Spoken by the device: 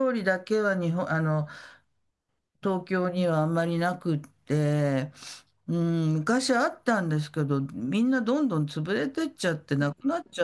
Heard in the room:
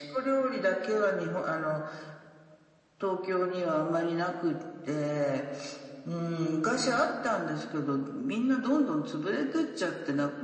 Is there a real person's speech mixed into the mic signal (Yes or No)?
No